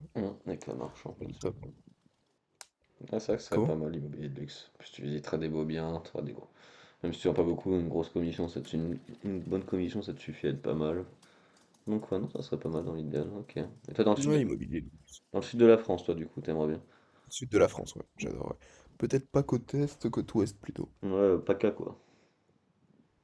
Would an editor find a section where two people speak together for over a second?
No

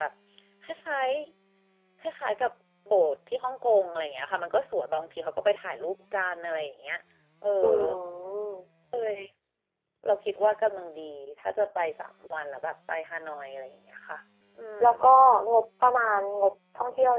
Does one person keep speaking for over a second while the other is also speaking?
No

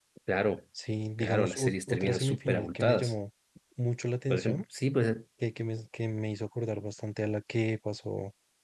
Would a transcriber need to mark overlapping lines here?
Yes, from 1.2 s

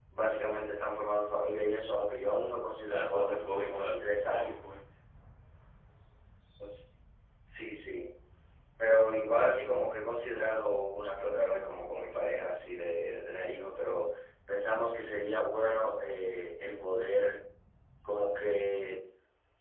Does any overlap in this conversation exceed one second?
Yes, from 2.8 s

